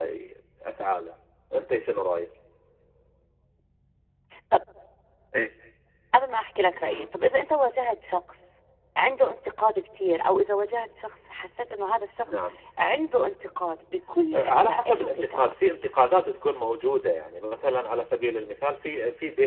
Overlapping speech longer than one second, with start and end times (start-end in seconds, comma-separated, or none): 14.3-15.5